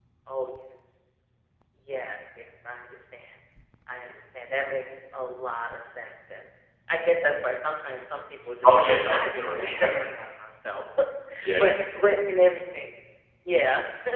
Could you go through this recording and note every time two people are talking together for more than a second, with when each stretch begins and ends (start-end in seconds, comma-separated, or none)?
8.6-9.9